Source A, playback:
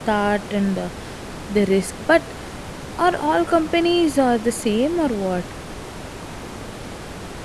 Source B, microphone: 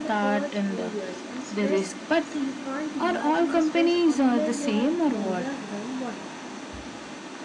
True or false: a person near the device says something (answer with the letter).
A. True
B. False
A